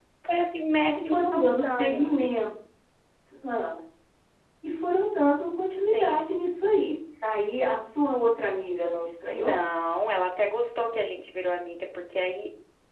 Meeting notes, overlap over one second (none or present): present